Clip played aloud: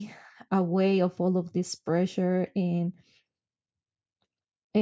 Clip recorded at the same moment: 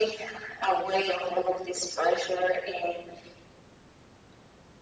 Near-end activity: none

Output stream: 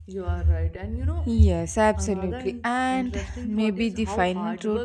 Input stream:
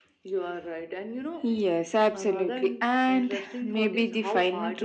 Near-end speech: none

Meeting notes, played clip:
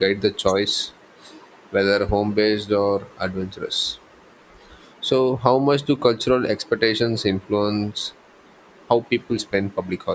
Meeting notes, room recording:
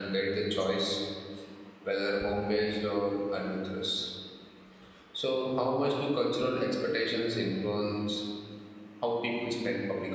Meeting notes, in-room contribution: none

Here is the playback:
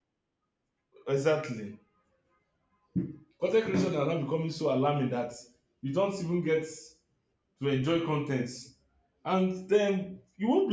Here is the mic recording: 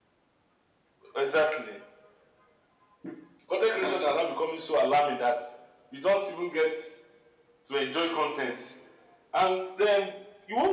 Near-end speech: none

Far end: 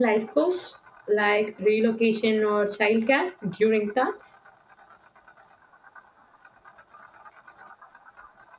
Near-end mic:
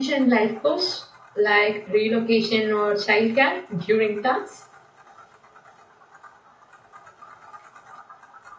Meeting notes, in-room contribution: none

